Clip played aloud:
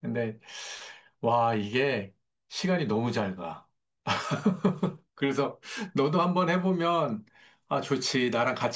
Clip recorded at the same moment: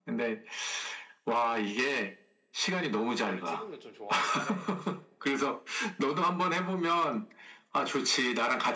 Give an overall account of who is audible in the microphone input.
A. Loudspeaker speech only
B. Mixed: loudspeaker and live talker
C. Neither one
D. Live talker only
B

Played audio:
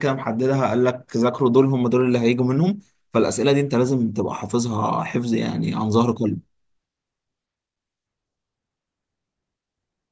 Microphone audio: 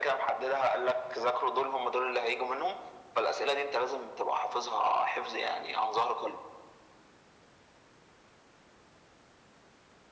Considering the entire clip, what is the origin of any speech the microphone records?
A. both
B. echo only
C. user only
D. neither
B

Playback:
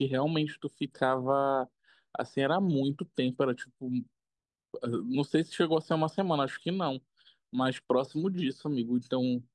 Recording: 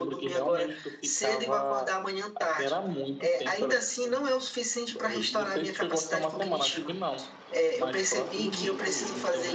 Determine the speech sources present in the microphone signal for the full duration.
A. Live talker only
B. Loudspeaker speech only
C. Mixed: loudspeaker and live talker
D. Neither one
C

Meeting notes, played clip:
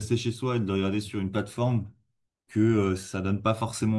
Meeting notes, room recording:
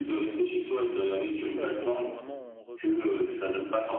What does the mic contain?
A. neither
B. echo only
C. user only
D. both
D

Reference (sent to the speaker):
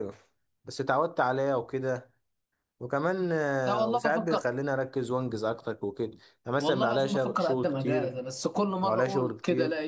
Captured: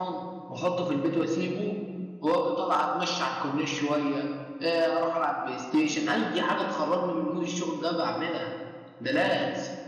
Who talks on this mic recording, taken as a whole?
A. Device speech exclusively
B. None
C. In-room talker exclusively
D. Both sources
C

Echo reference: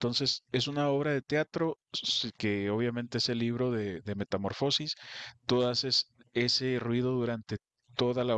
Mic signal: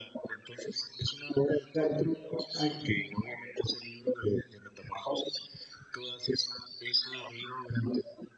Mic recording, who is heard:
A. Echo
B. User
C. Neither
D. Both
D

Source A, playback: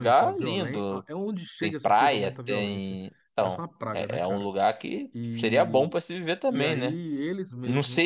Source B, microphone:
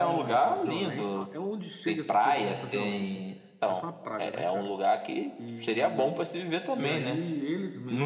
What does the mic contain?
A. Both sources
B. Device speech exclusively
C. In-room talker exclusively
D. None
B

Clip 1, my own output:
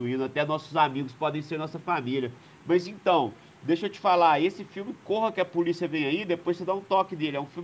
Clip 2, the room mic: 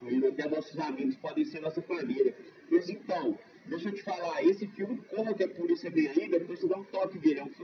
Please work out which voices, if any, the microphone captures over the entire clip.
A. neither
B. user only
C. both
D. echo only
D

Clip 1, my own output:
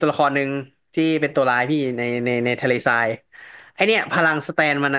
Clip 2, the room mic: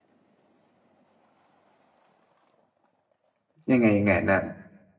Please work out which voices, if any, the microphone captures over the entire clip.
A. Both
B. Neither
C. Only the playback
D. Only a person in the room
D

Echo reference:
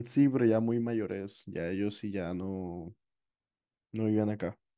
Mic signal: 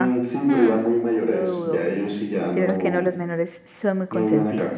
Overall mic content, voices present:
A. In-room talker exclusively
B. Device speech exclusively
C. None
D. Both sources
D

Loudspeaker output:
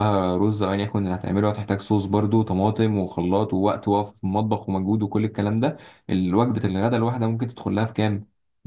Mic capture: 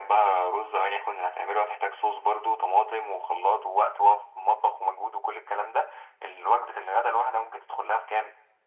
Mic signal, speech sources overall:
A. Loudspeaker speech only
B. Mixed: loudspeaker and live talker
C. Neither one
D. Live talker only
A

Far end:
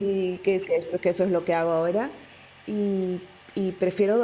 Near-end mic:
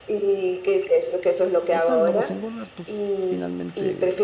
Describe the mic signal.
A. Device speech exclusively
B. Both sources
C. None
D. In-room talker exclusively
B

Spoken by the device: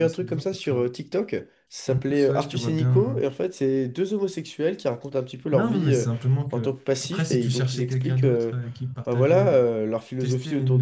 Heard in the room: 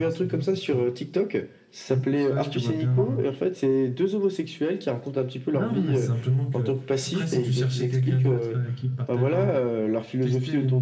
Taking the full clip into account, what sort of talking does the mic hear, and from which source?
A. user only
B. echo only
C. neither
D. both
B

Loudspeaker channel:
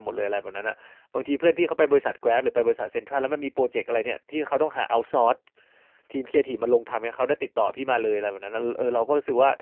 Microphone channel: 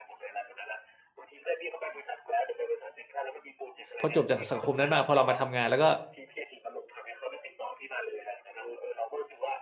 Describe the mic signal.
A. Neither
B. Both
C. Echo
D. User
B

